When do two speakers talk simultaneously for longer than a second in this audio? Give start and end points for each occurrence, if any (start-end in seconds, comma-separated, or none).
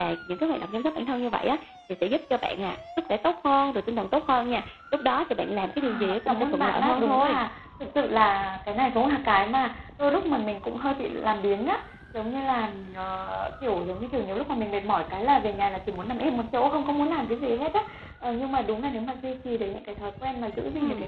5.8-7.4